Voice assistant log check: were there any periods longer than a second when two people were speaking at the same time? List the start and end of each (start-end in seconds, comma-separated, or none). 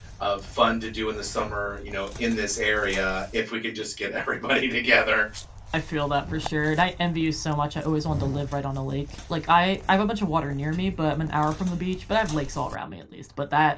none